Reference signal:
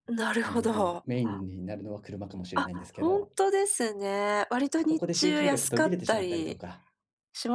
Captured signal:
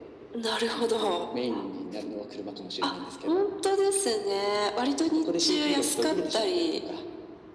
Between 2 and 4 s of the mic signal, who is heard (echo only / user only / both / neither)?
echo only